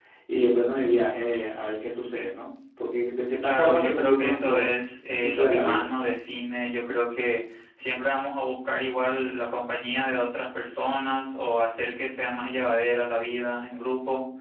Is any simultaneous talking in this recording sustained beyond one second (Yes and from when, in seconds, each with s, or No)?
Yes, from 3.4 s